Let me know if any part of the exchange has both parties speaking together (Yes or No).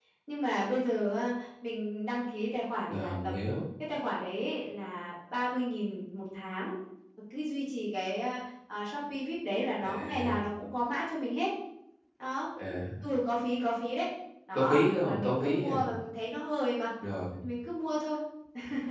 Yes